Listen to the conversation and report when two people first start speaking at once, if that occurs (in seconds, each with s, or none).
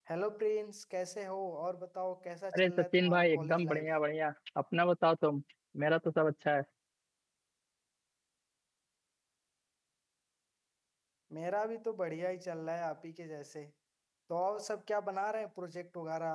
2.5 s